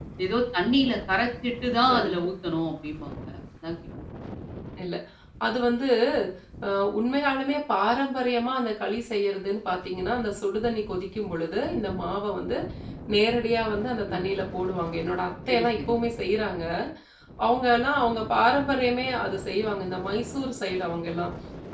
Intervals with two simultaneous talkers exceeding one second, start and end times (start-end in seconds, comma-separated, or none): none